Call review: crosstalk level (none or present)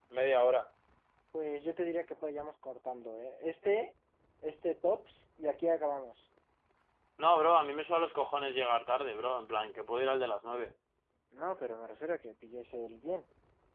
none